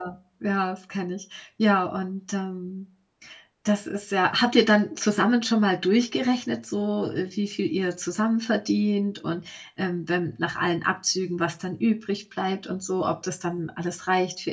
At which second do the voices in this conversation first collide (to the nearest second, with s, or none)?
none